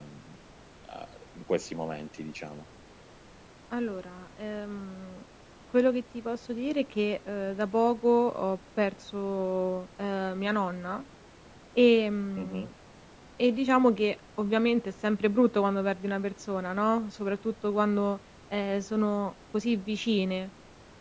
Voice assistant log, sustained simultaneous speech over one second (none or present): none